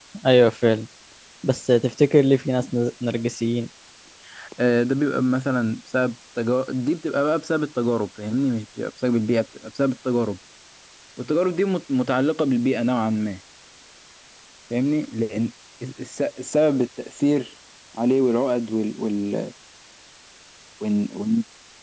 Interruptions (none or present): none